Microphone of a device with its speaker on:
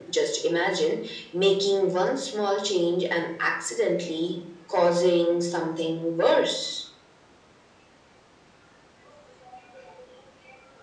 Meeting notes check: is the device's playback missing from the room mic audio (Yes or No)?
No